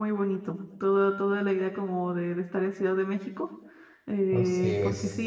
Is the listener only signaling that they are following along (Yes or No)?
Yes